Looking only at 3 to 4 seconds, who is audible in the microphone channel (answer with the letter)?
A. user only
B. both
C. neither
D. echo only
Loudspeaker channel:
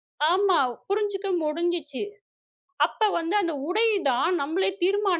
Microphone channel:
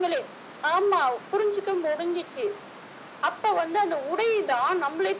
D